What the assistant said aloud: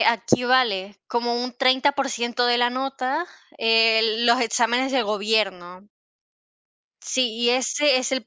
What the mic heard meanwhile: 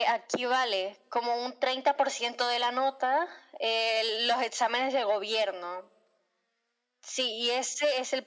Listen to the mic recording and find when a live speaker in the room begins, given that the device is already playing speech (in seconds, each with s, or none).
none